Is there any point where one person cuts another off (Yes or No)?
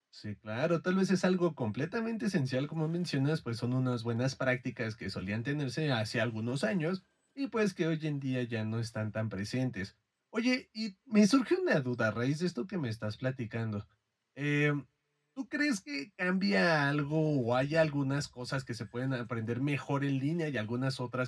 No